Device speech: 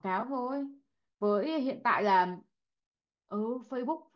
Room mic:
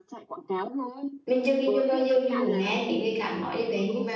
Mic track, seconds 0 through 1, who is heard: echo only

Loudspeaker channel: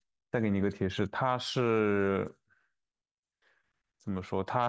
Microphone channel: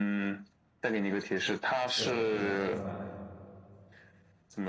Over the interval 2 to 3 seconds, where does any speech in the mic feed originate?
both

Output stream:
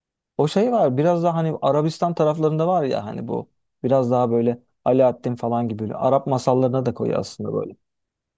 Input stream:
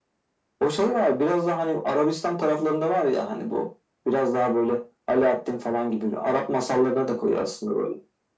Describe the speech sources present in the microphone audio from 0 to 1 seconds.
echo only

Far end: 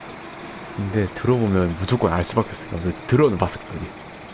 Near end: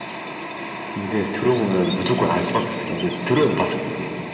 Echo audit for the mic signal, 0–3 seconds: echo only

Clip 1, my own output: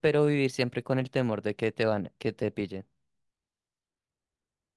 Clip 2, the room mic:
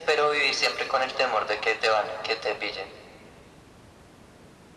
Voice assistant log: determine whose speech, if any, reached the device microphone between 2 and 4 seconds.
echo only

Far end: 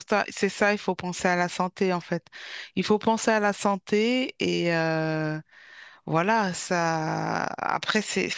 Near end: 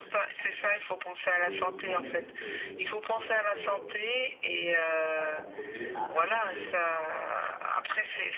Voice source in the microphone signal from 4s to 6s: both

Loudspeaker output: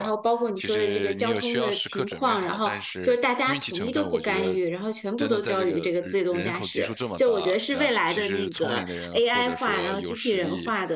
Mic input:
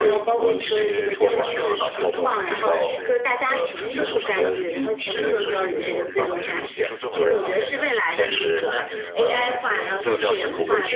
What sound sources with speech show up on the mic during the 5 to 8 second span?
both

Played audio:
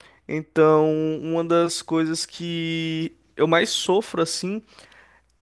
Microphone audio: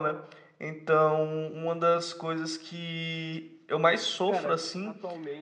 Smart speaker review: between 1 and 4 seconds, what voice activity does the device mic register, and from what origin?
echo only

